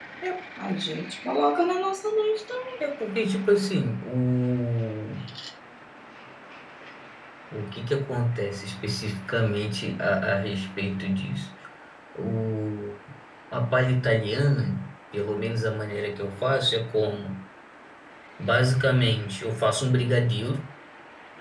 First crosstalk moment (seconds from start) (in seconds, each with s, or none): none